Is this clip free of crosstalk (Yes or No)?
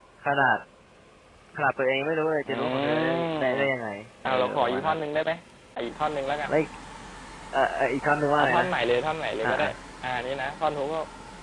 No